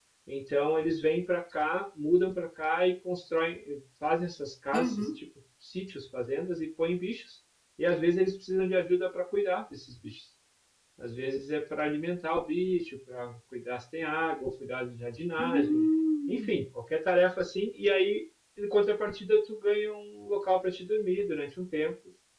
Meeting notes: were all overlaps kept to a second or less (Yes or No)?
Yes